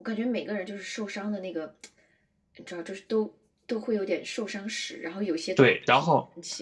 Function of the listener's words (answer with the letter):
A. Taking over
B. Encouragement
A